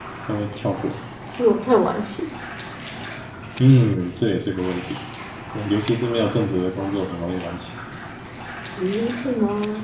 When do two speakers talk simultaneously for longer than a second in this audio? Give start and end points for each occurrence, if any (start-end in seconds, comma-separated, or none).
none